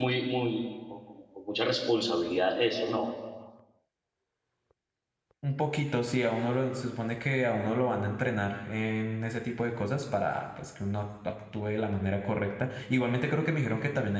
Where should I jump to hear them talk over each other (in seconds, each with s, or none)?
none